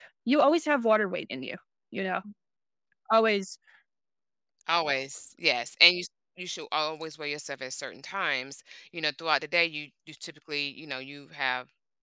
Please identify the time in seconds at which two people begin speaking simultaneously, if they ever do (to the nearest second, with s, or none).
none